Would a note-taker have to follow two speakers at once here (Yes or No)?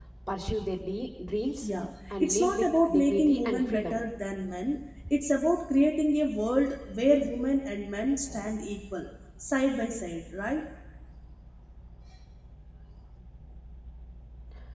Yes